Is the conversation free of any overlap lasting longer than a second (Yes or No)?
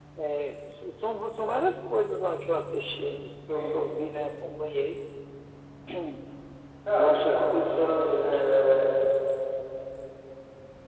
No